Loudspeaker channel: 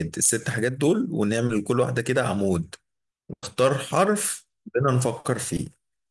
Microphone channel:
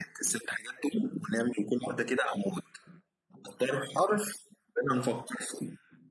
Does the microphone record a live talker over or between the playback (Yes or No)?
No